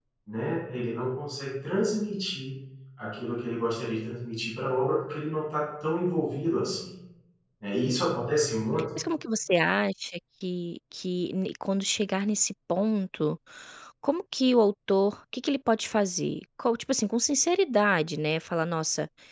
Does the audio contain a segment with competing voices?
No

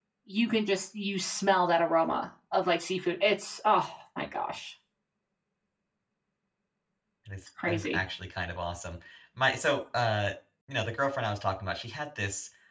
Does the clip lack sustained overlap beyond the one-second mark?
Yes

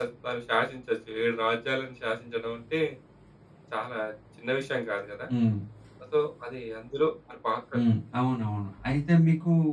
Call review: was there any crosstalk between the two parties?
No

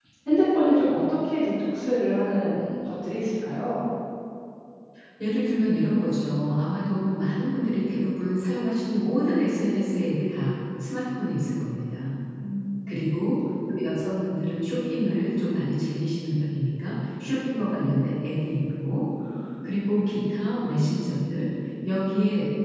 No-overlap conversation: Yes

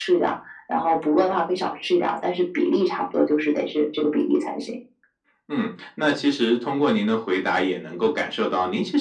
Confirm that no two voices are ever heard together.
Yes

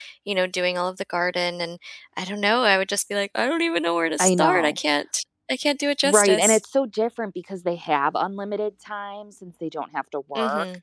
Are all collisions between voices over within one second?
Yes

